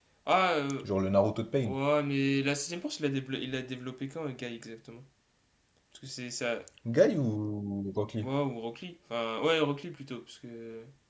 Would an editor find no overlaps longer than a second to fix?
Yes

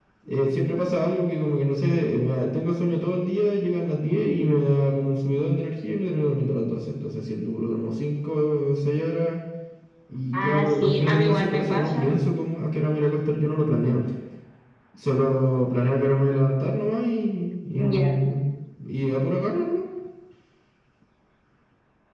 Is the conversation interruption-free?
No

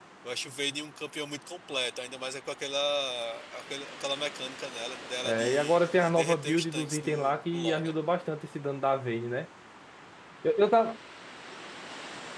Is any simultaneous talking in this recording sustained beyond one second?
Yes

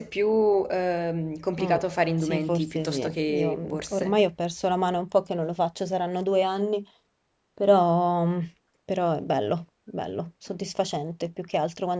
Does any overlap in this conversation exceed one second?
Yes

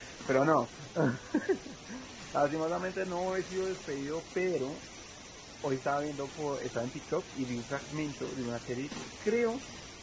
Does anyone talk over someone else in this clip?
No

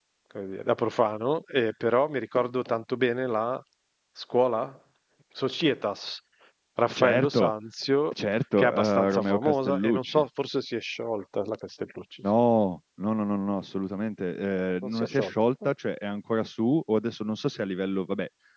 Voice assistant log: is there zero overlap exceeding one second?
No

